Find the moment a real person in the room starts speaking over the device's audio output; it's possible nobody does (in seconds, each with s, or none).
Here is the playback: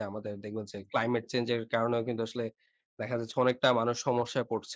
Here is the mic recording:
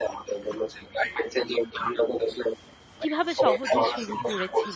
3.0 s